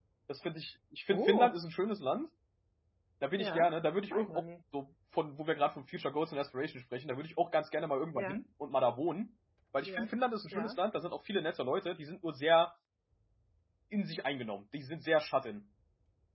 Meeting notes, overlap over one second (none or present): none